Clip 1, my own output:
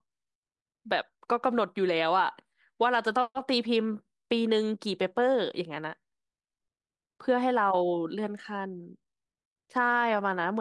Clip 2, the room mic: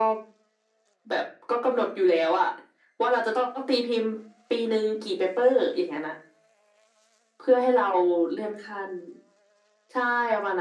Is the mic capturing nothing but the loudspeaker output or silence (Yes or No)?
Yes